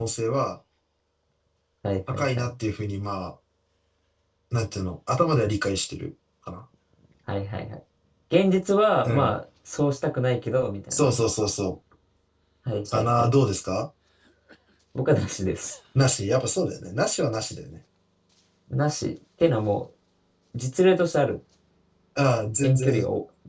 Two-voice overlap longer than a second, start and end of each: none

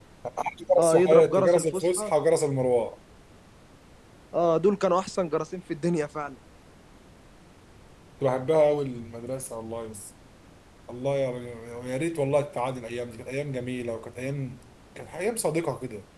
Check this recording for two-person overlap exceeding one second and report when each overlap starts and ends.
0.8-2.1

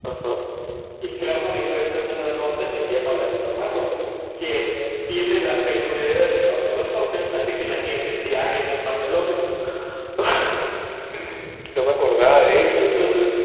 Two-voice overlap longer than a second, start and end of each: none

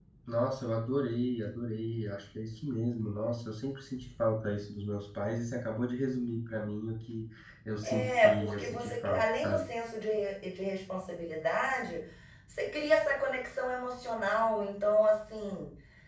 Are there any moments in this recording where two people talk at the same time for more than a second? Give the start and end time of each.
7.8-9.6

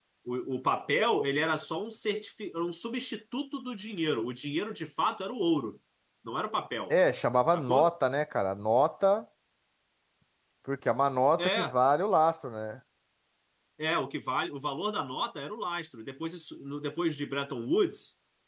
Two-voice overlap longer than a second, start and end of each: none

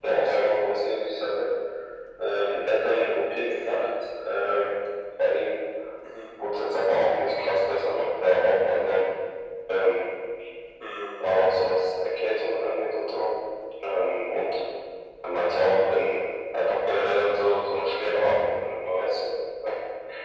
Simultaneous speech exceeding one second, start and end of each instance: none

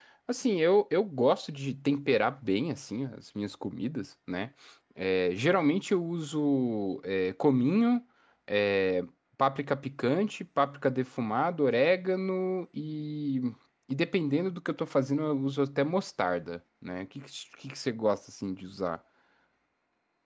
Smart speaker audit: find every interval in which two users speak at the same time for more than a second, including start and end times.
none

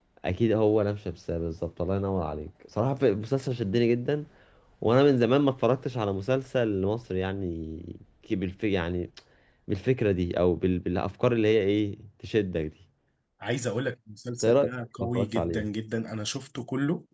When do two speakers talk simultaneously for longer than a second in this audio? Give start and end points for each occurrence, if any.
14.4-15.7

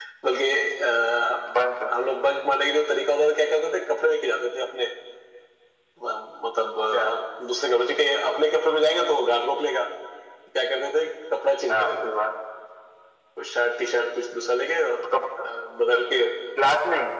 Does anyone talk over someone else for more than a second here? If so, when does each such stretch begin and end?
none

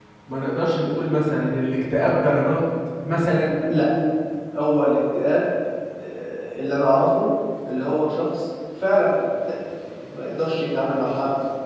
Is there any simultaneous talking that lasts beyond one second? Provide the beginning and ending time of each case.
none

